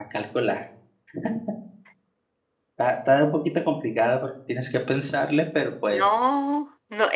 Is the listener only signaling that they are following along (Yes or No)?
No